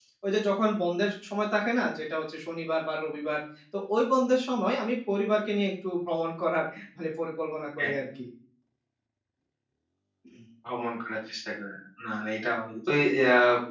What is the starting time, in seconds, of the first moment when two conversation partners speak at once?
none

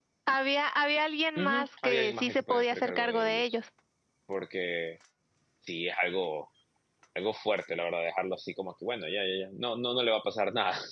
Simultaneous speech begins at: 1.4 s

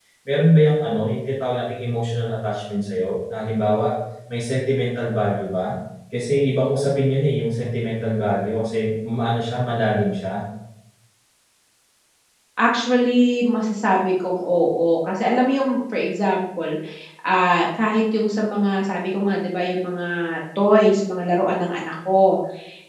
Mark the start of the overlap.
none

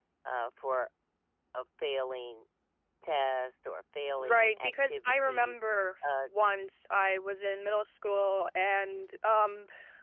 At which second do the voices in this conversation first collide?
4.2 s

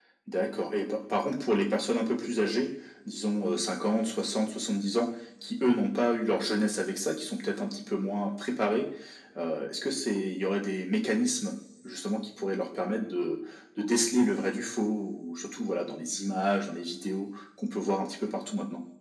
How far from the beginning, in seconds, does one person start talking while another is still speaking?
none

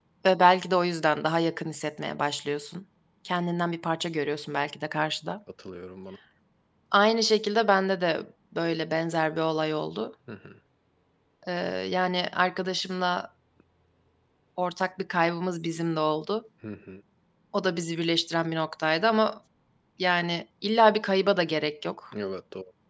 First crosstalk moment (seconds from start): none

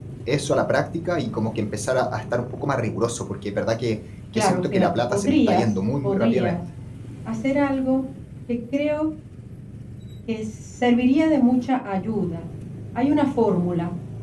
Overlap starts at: 4.3 s

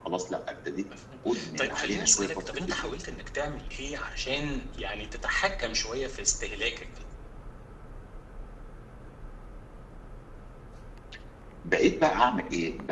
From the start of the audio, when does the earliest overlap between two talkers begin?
1.6 s

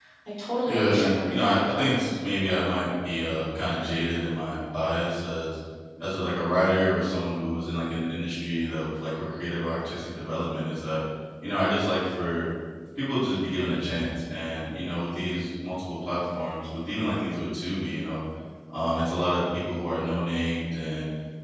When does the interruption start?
0.6 s

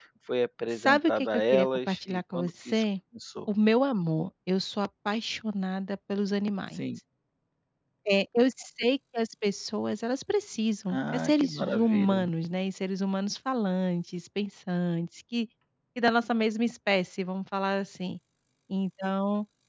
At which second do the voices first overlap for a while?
0.7 s

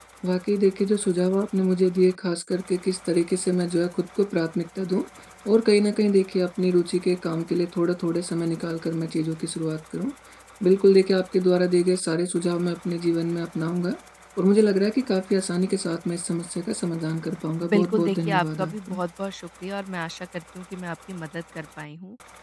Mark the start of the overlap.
17.6 s

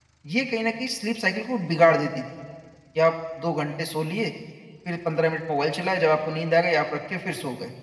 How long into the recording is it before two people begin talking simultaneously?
none

